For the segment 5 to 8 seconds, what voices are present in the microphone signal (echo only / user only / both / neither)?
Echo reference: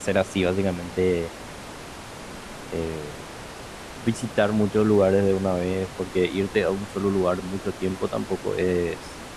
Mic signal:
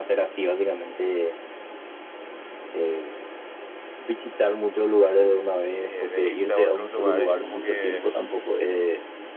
both